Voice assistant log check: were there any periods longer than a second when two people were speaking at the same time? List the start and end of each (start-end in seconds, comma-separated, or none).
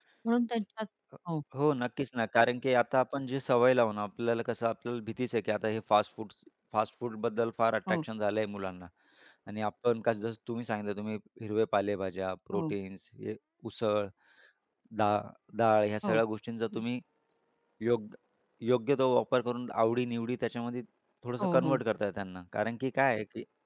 none